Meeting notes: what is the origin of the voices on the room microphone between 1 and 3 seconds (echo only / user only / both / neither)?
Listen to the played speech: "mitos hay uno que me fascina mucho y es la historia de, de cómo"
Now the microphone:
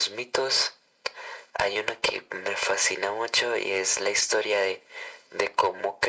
echo only